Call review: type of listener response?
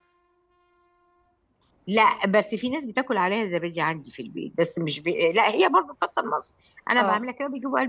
listening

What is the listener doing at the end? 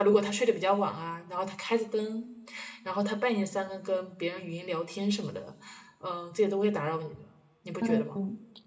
taking over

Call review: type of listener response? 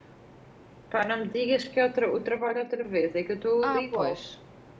taking over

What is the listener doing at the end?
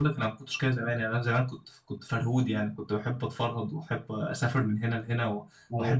listening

